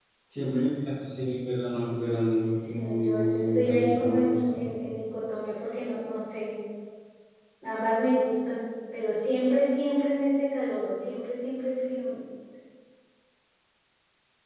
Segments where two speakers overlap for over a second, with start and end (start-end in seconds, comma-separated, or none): 2.7-4.6